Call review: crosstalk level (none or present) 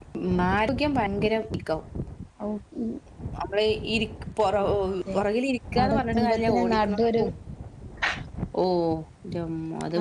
present